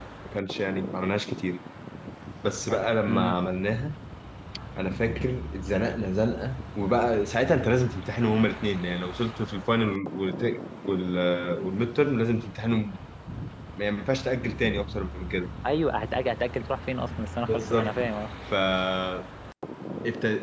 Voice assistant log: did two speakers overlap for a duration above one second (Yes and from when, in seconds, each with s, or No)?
No